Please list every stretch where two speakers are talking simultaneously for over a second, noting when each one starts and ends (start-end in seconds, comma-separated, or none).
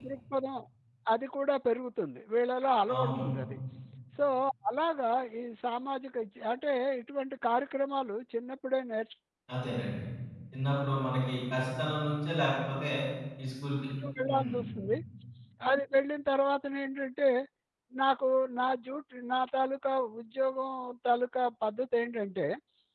none